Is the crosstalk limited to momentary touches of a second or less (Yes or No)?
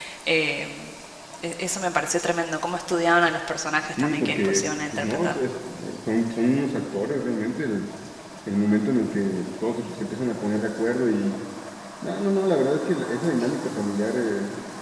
No